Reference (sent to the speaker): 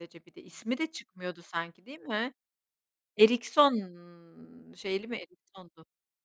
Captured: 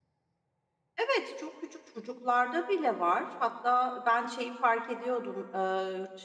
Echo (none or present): none